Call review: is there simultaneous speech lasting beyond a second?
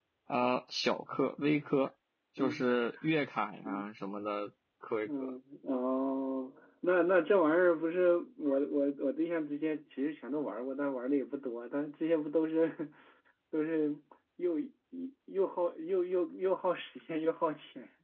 No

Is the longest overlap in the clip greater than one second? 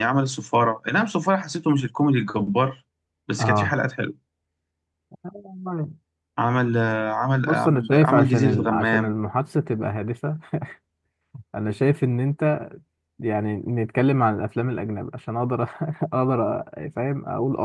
Yes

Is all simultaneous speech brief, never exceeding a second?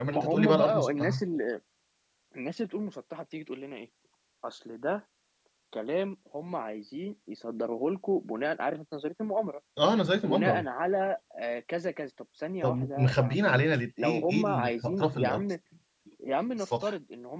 No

